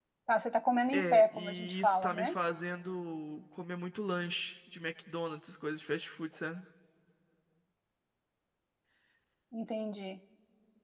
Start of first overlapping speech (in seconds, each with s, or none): 0.9 s